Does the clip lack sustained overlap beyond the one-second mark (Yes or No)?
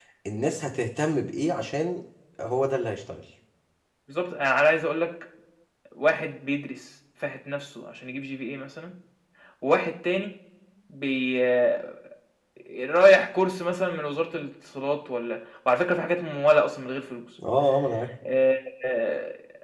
Yes